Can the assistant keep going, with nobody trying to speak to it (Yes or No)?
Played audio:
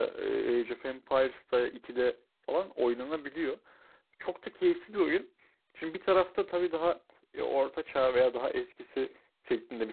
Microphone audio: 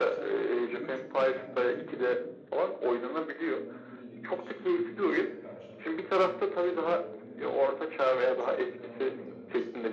No